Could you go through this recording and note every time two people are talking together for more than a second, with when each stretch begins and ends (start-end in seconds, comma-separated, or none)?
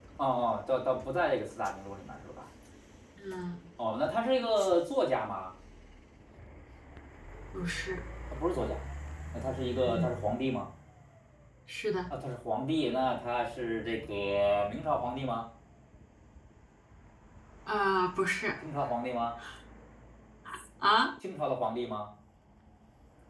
none